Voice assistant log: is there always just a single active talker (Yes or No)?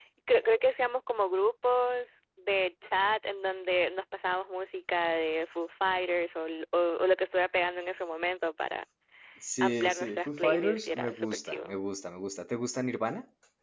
No